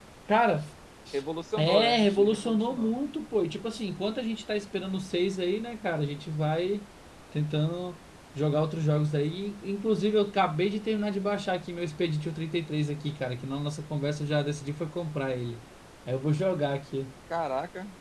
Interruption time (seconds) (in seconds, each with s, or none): 1.6 s